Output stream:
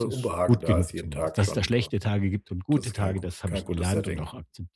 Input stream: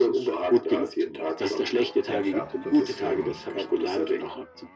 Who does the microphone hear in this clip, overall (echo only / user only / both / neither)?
both